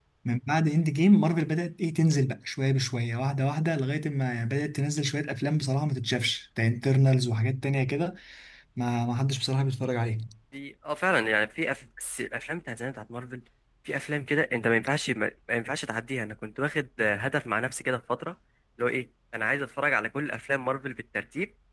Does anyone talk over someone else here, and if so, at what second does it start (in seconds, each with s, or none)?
none